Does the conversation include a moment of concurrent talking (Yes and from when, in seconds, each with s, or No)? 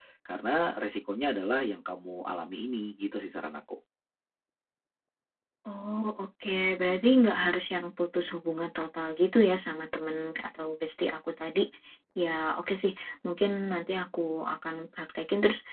No